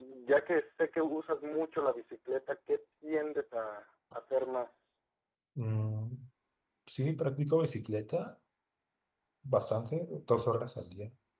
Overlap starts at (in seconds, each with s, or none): none